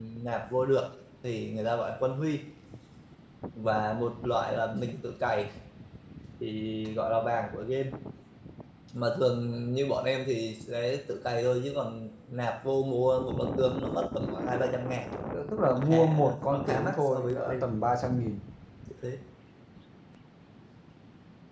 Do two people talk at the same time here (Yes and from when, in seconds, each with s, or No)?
Yes, from 15.7 s